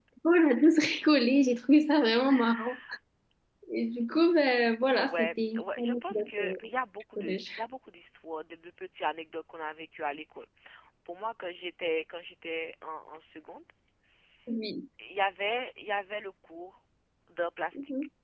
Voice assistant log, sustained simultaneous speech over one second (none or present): present